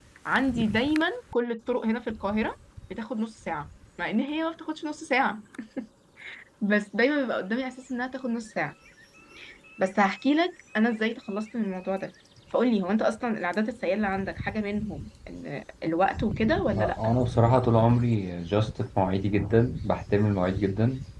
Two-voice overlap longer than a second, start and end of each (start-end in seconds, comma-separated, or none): none